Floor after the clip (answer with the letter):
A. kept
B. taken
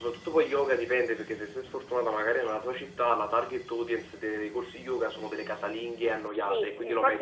B